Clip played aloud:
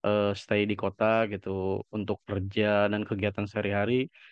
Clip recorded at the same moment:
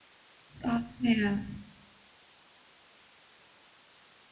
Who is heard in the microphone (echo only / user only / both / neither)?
user only